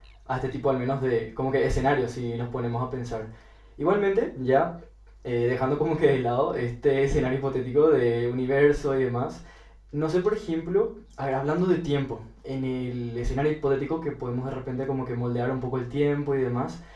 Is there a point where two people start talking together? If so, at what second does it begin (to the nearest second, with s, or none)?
none